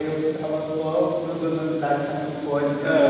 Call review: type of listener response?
taking over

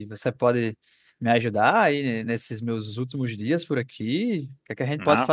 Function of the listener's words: listening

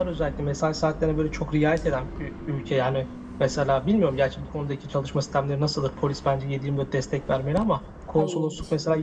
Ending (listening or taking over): listening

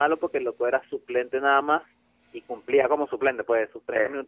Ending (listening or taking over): listening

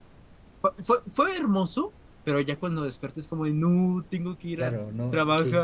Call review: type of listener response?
taking over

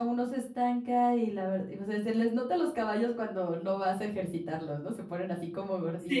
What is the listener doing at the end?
taking over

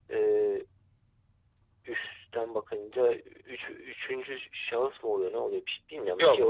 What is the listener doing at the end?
taking over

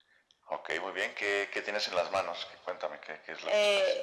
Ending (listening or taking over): taking over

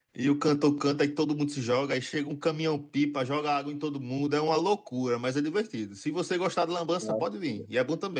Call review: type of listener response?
listening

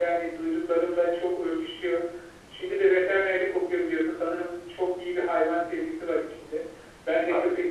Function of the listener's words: listening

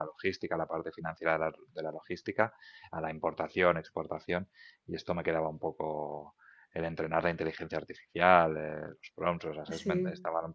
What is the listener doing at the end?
listening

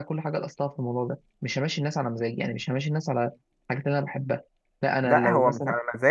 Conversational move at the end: taking over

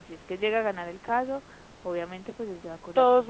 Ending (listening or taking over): taking over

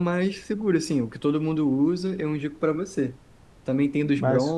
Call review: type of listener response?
listening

